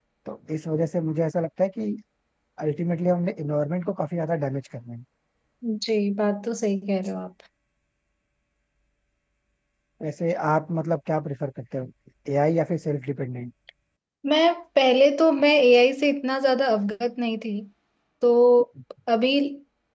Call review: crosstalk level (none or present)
none